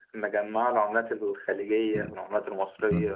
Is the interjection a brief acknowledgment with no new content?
No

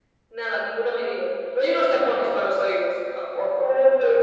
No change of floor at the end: No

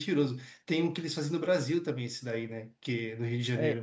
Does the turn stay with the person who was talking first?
No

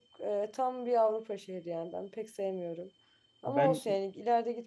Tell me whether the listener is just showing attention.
Yes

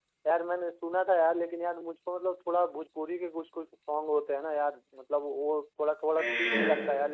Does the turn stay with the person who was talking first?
Yes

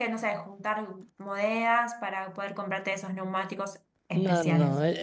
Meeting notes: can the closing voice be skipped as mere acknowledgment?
No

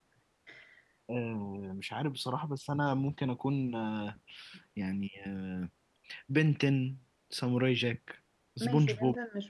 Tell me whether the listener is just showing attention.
No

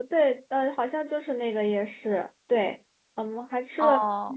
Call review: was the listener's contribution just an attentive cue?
Yes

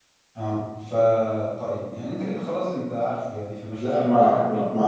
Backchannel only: No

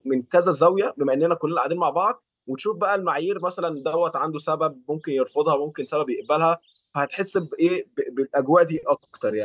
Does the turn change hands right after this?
Yes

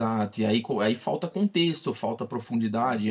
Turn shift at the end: No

